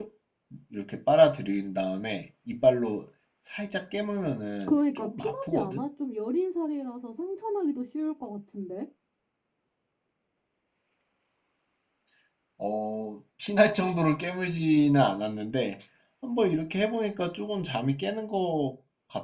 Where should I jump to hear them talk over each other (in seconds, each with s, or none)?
4.6 s